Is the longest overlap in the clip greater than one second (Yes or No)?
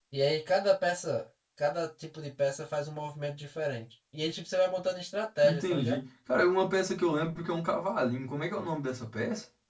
No